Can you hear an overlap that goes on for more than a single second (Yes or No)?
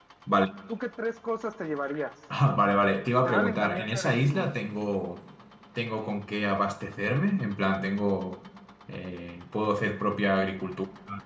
Yes